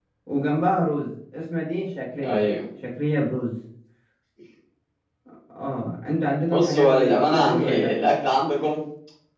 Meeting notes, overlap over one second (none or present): present